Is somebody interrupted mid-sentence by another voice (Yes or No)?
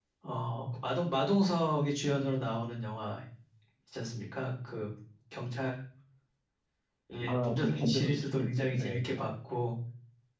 Yes